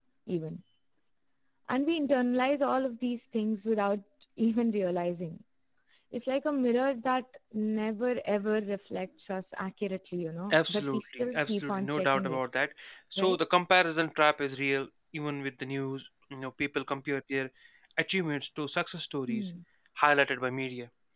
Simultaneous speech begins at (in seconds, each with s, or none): 10.5 s